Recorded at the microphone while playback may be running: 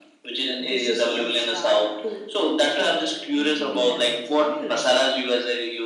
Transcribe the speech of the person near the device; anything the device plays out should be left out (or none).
dishes from start to end including desserts. How do you like it?